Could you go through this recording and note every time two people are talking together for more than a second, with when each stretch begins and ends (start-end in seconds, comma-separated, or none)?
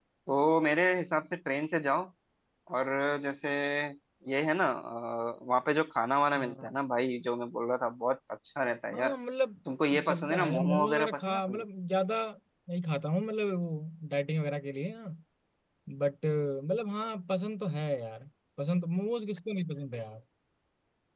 10.1-11.6